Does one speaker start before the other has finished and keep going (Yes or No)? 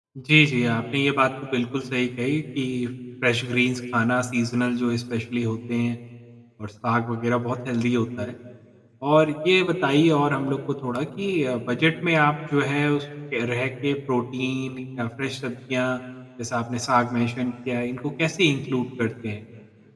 No